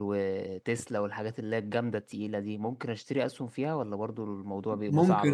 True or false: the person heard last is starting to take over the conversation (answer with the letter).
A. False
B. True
B